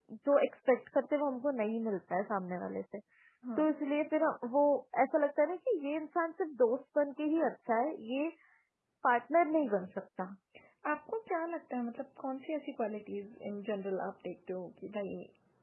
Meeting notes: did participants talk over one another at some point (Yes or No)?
No